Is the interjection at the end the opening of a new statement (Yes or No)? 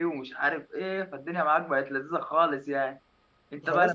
Yes